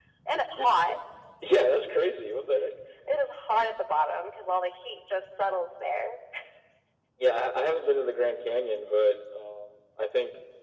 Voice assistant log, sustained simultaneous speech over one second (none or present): none